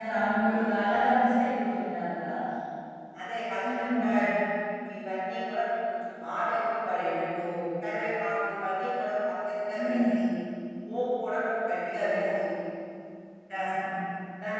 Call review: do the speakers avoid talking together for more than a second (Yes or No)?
Yes